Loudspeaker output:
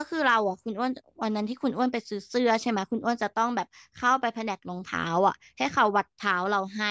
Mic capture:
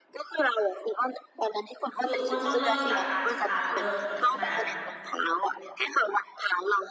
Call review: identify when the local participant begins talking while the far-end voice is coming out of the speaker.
2.0 s

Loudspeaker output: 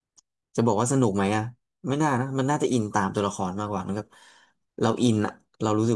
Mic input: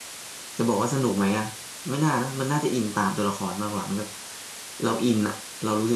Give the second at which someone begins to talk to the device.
none

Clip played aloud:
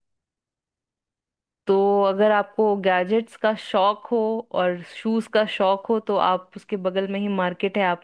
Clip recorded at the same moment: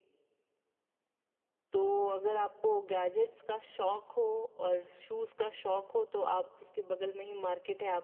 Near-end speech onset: none

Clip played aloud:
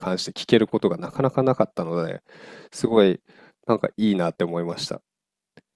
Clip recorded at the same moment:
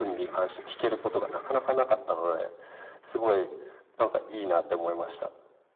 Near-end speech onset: none

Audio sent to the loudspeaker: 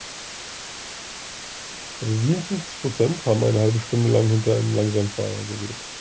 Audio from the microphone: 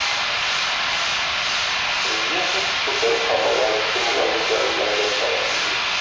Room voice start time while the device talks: none

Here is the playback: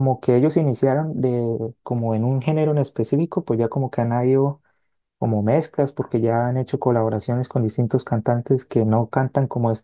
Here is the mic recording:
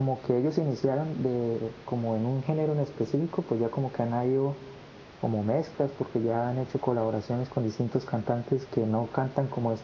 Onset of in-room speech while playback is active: none

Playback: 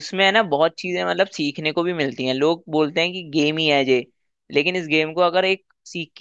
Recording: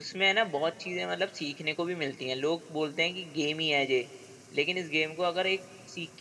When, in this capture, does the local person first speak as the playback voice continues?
none

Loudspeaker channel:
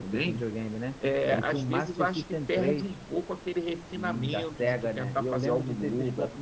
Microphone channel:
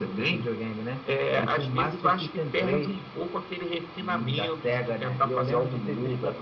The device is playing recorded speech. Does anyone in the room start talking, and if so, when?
none

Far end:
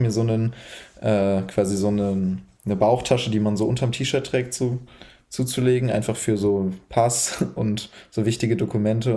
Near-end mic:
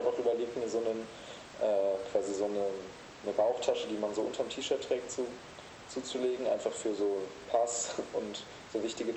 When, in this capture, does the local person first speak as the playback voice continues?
none

